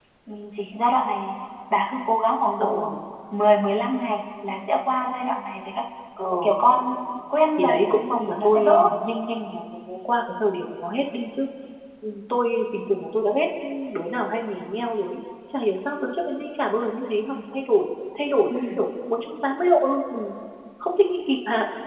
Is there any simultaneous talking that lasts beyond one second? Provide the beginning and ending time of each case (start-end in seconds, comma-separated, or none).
7.6-8.8